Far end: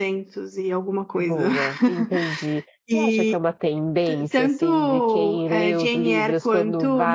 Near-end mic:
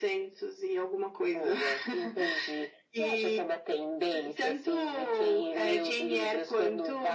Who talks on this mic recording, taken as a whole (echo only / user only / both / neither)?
echo only